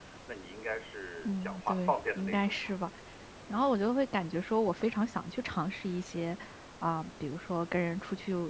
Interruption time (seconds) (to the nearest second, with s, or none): 1 s